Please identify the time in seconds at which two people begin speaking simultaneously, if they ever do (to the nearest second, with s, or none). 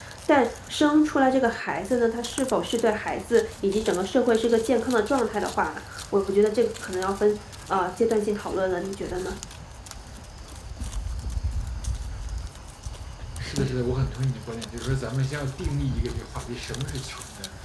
none